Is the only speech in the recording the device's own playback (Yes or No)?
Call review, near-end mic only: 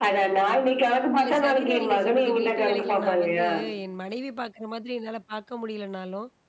No